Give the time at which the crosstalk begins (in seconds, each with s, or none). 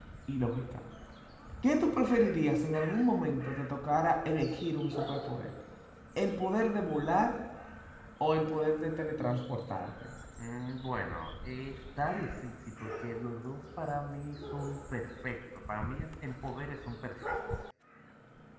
none